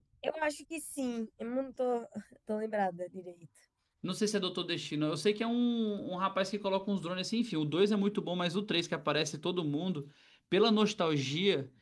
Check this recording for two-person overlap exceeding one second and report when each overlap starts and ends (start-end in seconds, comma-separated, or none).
none